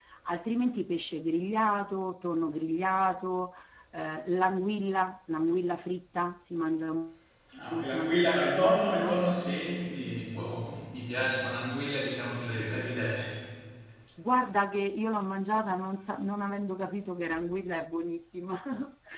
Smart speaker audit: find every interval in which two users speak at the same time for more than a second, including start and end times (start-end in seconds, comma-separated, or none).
7.7-9.2